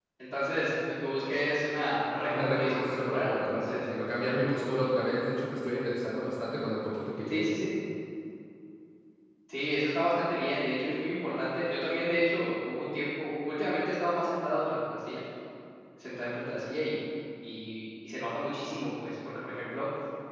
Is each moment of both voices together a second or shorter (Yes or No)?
No